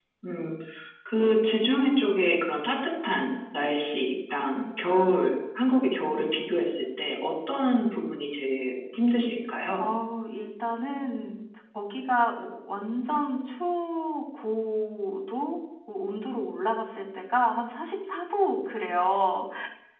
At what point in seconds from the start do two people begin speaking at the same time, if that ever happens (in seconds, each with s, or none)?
none